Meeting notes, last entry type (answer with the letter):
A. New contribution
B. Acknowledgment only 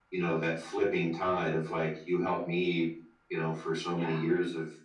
B